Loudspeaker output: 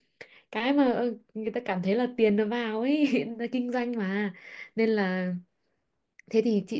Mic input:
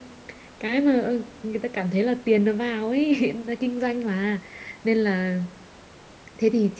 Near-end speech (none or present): none